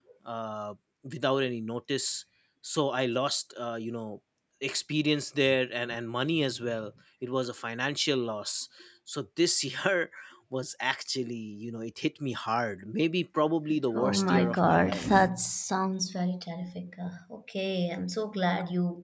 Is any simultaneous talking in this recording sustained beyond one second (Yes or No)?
Yes